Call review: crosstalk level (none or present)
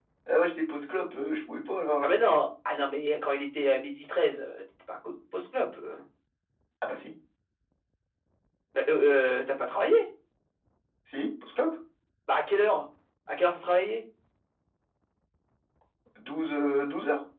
none